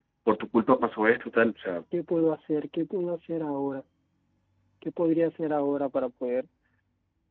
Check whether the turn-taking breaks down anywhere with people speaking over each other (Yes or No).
No